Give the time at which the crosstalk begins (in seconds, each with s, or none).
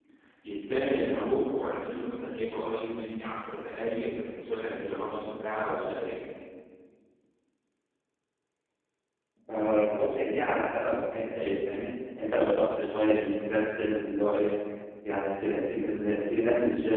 none